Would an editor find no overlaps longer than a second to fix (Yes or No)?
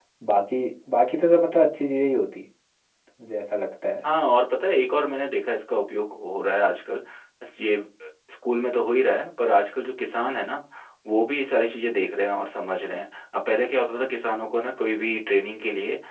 Yes